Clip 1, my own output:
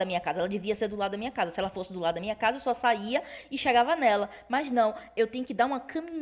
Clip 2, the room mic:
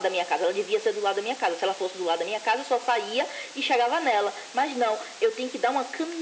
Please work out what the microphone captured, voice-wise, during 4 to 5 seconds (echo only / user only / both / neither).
echo only